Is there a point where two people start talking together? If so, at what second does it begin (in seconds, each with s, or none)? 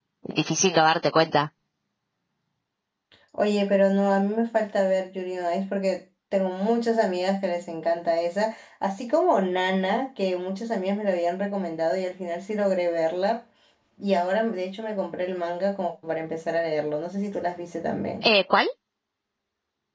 none